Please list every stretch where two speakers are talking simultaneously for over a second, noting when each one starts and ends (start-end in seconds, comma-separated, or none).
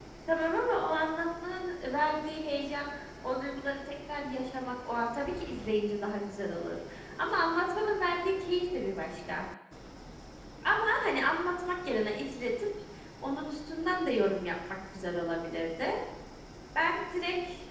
none